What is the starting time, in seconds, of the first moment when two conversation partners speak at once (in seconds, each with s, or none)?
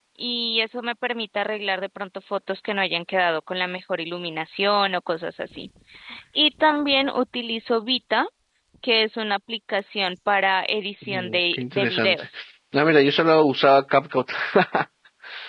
11.0 s